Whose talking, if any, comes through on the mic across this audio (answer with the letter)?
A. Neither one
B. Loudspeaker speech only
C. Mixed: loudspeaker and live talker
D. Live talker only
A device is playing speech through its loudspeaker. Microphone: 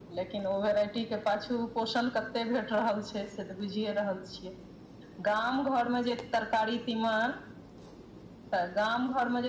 B